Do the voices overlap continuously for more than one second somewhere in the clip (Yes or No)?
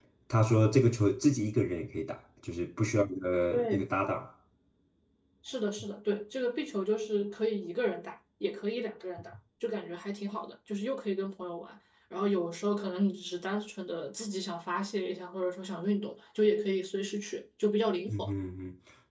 No